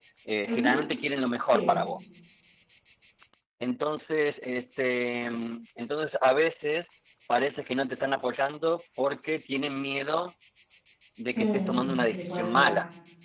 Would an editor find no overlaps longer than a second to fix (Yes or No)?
No